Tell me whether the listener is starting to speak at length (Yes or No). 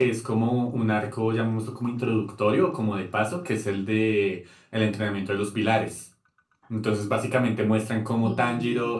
No